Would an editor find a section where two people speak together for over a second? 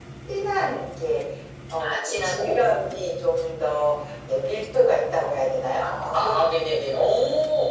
Yes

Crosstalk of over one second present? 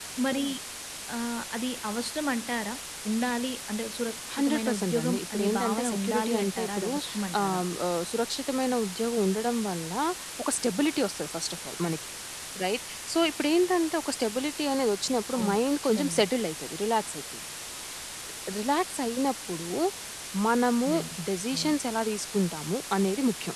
Yes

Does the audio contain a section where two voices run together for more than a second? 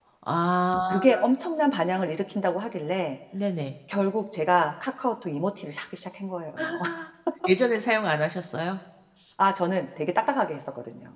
No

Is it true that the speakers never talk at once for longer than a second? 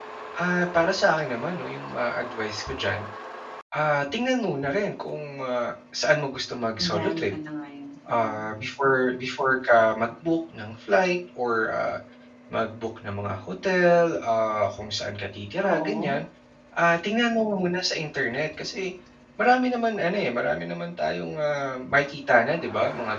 Yes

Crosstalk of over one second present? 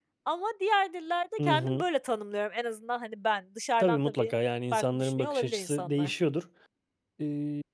Yes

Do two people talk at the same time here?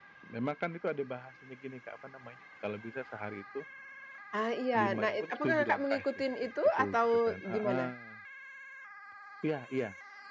Yes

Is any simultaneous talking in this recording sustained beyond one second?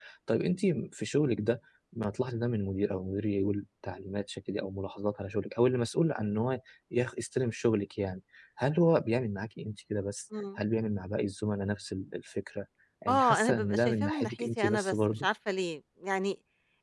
Yes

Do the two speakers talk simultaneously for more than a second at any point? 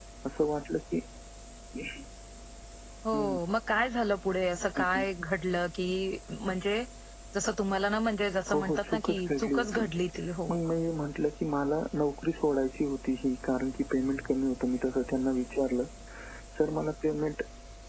Yes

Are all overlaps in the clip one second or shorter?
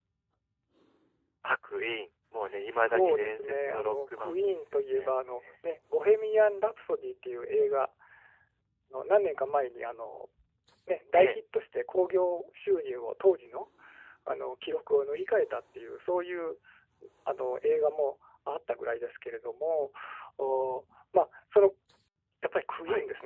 No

